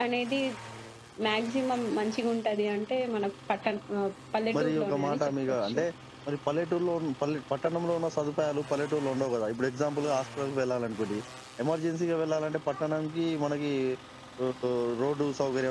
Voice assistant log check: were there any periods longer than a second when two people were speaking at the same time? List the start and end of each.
4.6-5.8

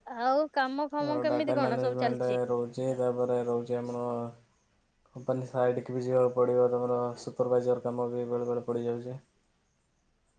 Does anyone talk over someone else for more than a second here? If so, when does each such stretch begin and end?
1.1-2.4

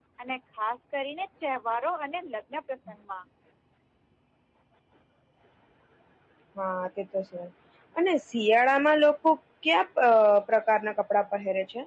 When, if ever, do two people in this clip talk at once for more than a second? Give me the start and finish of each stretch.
none

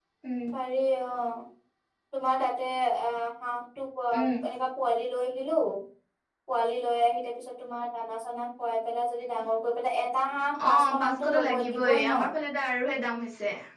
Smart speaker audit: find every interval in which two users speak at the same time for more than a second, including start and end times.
10.6-12.2

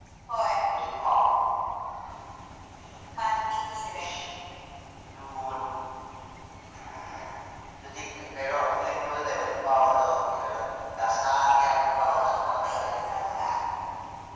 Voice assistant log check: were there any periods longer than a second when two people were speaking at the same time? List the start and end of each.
12.0-13.5

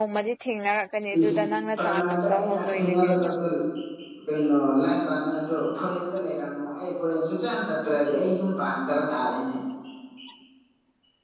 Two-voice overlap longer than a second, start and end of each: 1.8-3.2

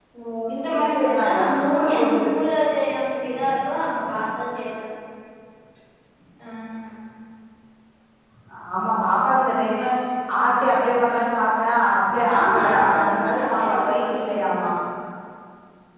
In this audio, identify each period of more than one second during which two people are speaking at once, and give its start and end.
0.6-2.2, 12.3-13.9

